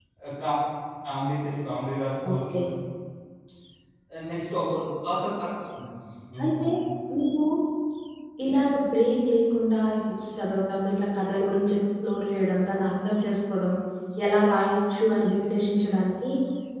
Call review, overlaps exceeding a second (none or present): none